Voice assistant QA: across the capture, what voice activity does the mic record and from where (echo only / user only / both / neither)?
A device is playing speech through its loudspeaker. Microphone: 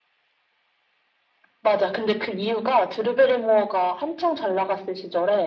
echo only